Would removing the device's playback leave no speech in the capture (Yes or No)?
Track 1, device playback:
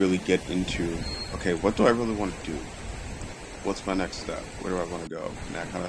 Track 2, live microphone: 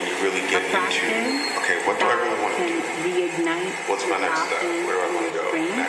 No